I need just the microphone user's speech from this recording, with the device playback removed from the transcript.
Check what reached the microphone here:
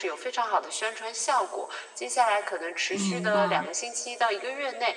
明白，

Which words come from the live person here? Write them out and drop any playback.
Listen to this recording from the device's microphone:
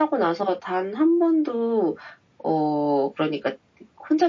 none

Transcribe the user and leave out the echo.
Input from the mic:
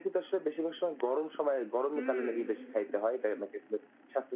হুম।

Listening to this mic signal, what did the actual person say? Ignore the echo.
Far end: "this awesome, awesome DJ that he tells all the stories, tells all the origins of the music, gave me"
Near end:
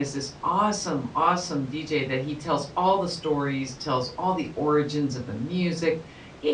none

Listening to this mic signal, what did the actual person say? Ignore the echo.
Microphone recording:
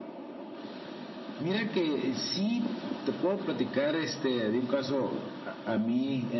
none

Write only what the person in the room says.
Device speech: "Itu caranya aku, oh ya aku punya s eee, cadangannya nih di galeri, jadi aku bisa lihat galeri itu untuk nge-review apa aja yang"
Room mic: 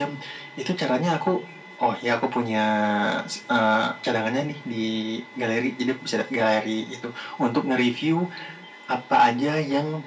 none

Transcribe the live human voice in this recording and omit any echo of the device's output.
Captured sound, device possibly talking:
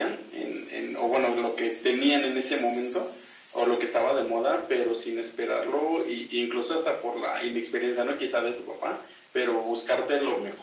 none

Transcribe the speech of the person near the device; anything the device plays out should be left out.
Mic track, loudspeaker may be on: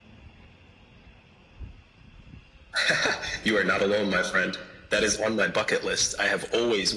none

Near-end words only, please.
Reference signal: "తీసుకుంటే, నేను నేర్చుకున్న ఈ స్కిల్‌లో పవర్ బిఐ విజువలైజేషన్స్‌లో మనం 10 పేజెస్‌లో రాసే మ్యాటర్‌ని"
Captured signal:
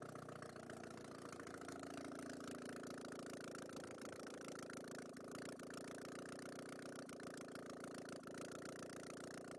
none

